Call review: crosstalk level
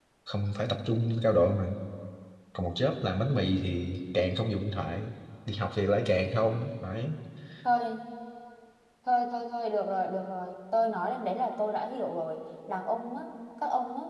none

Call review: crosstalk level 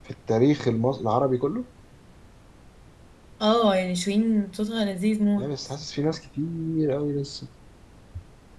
none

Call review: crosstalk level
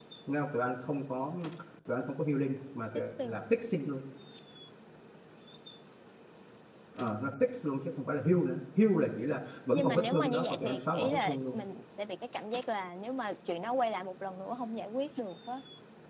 present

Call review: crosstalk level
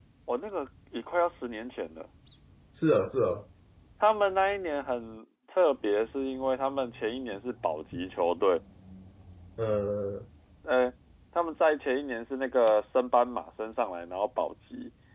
none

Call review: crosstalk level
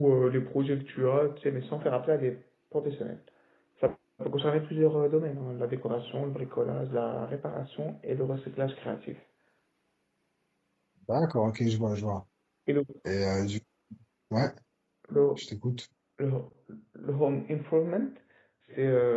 none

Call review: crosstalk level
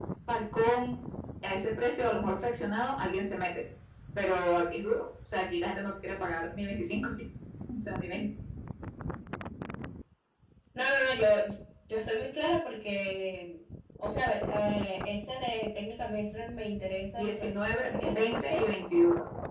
present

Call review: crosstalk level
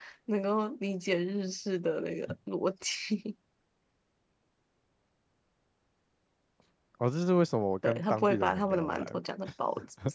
present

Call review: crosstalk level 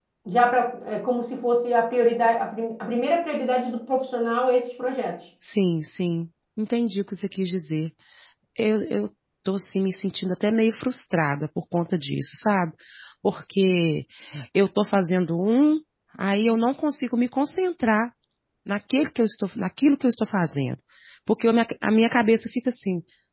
none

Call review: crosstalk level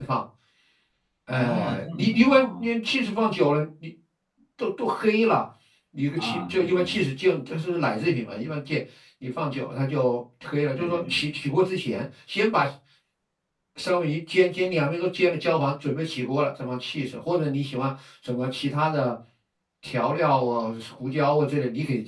present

